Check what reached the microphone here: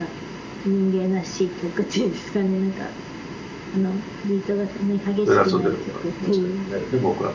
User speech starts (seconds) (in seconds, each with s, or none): 5.2 s